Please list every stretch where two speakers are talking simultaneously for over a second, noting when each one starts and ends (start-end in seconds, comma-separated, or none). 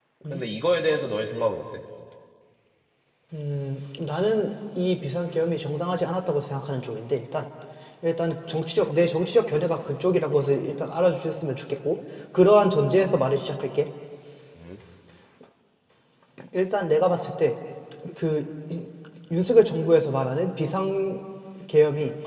none